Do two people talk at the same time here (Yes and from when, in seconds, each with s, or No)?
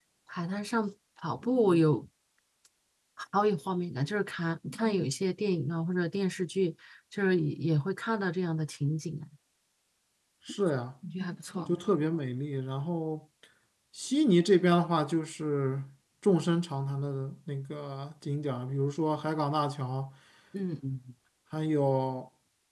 No